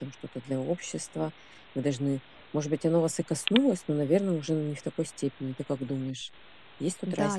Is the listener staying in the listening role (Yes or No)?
No